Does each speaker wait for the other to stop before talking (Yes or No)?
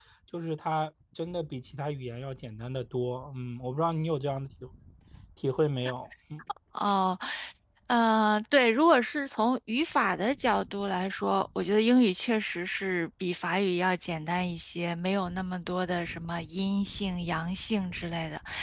Yes